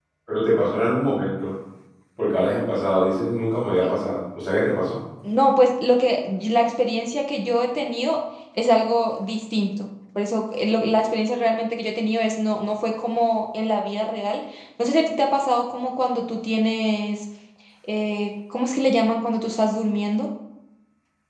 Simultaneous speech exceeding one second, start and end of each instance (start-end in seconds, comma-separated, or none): none